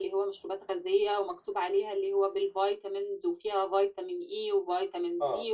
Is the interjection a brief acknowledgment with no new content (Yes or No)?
Yes